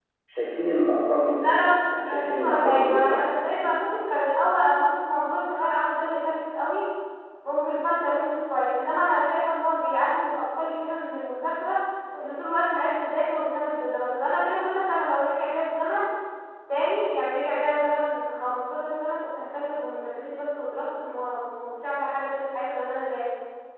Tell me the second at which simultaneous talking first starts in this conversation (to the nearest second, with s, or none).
1 s